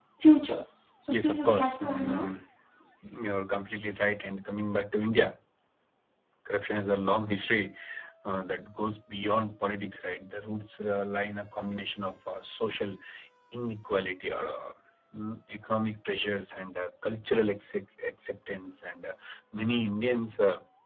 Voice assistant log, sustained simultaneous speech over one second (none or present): present